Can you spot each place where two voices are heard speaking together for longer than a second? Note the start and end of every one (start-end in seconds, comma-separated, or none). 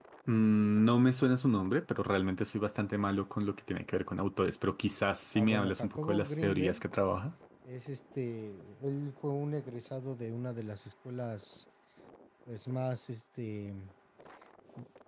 5.4-6.8